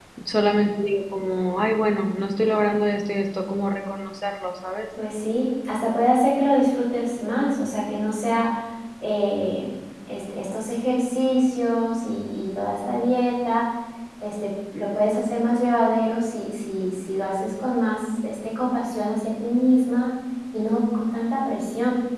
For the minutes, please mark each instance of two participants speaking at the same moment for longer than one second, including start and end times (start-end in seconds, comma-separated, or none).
none